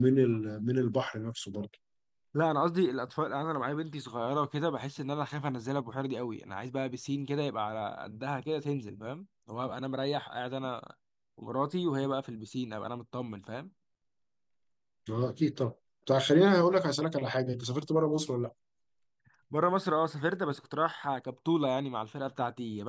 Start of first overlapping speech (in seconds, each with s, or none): none